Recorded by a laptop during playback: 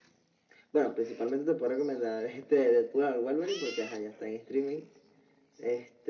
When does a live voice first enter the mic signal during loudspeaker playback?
none

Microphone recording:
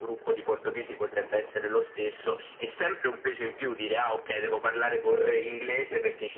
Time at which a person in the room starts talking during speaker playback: none

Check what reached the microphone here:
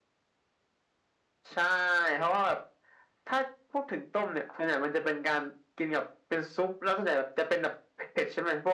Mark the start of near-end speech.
none

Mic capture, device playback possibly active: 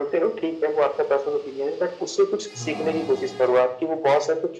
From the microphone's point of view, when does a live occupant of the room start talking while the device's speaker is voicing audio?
2.6 s

